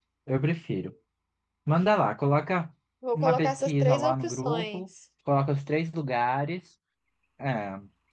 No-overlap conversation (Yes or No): No